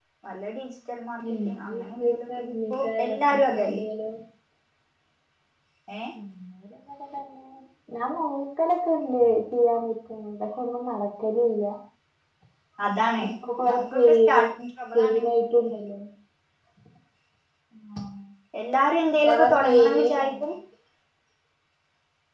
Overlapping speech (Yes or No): Yes